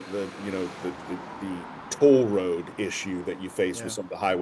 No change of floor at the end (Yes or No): Yes